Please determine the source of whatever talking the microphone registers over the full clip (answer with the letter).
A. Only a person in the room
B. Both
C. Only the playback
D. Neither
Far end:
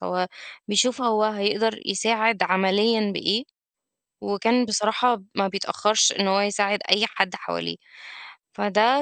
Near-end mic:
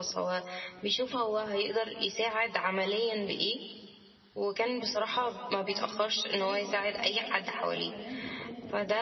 B